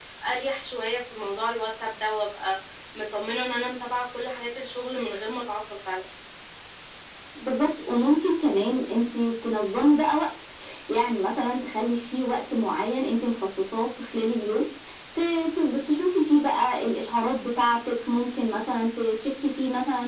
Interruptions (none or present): none